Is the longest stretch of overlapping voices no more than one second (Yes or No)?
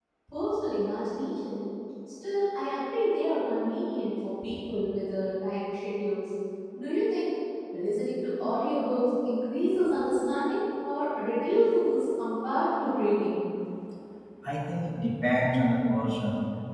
Yes